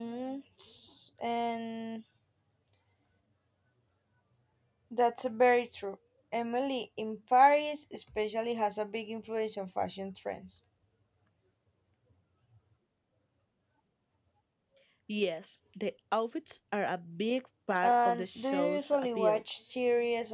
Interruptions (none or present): present